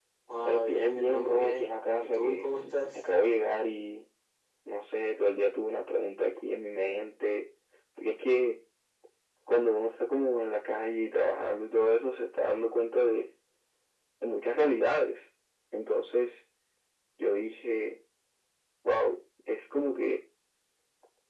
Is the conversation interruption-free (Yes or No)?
No